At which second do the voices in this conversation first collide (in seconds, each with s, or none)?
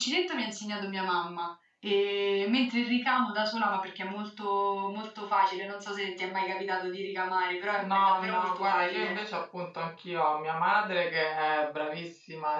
7.8 s